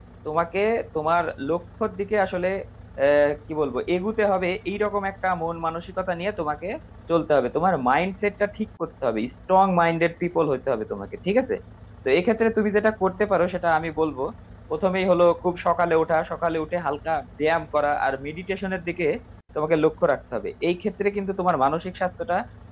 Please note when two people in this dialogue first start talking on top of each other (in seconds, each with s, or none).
none